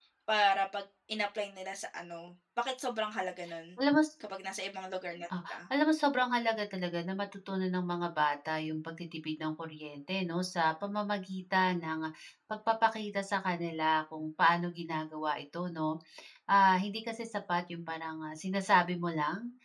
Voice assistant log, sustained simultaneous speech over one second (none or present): none